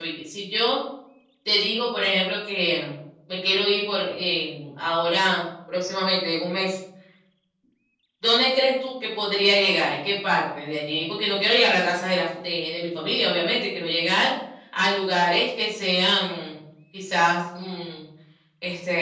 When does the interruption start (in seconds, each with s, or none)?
none